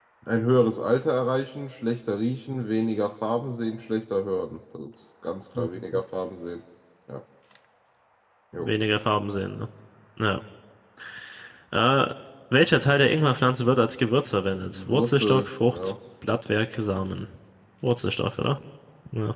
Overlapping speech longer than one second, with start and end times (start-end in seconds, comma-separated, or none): 14.6-15.9